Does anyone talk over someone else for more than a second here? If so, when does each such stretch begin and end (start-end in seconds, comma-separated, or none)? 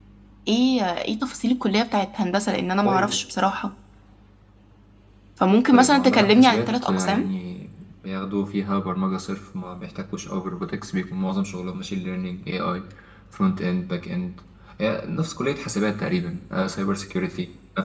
5.7-7.3